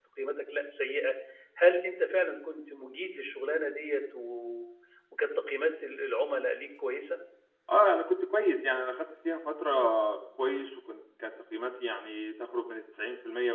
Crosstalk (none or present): none